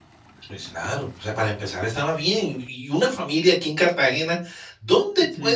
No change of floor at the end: Yes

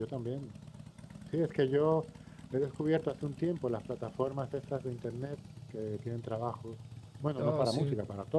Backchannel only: Yes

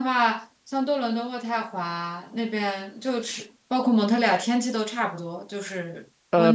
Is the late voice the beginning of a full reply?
Yes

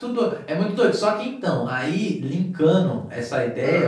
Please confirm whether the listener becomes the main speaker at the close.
No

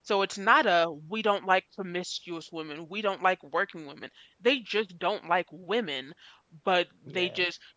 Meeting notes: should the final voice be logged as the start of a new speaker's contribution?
No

